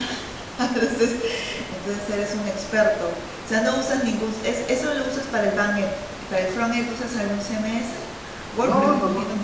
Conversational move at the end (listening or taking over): taking over